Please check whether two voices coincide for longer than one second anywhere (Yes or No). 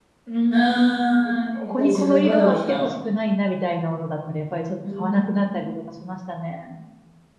Yes